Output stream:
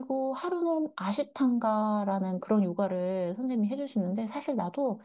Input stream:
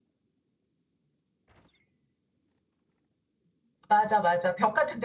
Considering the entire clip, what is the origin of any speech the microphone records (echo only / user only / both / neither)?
user only